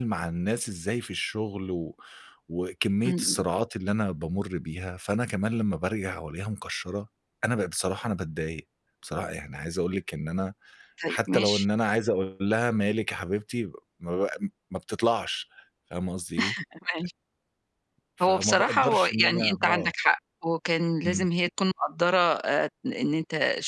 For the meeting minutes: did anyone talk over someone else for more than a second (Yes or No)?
Yes